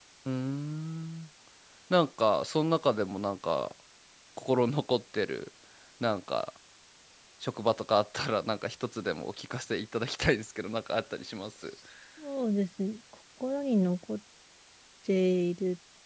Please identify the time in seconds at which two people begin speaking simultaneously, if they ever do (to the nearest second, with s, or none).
none